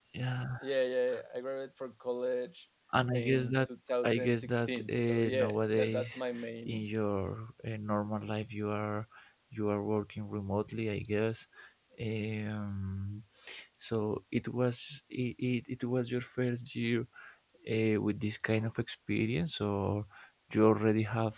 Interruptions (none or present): present